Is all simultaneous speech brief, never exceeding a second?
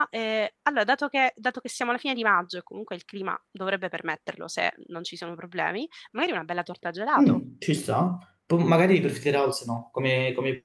Yes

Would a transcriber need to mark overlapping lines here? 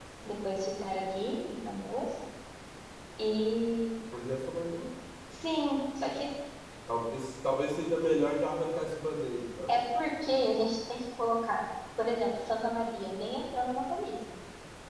No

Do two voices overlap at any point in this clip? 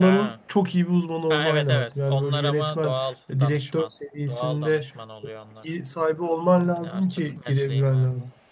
Yes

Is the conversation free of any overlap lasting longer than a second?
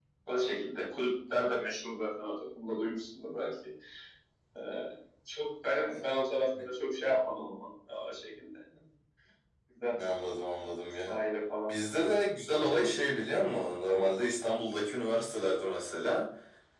Yes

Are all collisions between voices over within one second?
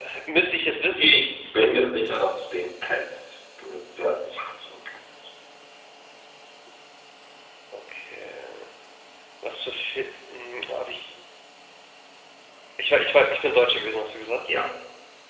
Yes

